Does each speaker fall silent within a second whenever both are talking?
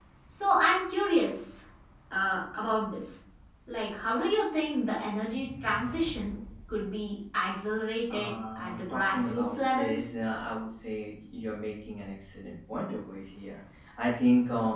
No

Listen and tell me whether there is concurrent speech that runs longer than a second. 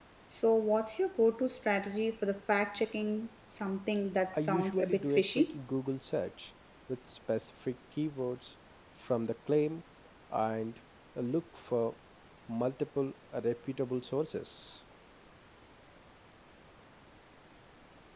Yes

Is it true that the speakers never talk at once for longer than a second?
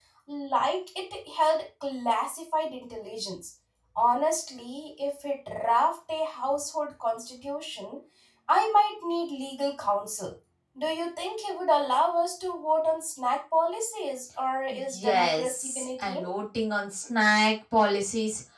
No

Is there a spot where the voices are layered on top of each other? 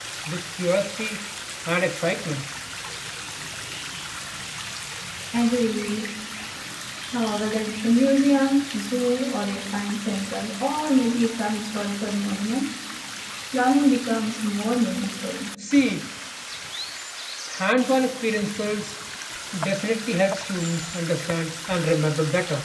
No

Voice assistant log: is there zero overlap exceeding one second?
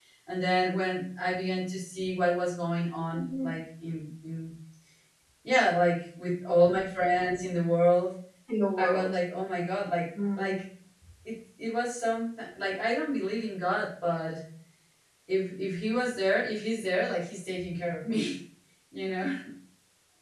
Yes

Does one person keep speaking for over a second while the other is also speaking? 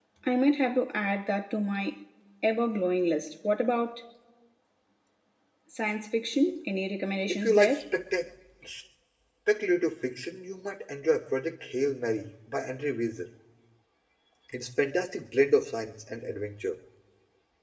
No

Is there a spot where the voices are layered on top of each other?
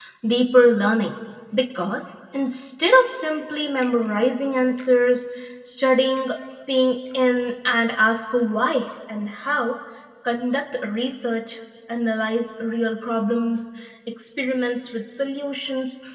No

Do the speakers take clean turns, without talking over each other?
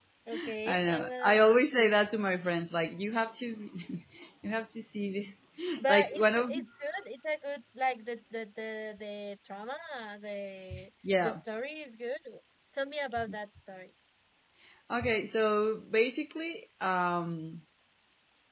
No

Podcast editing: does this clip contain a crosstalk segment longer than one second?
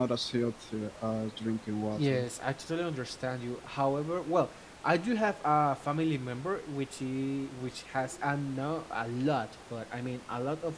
No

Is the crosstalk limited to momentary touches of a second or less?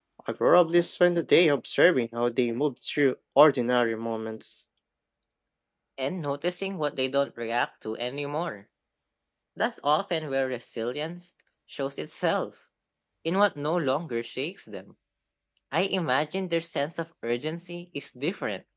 Yes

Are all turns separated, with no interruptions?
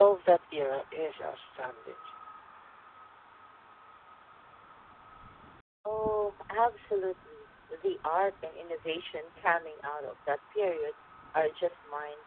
Yes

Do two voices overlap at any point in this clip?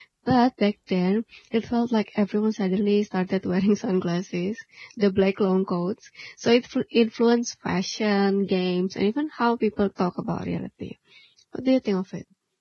No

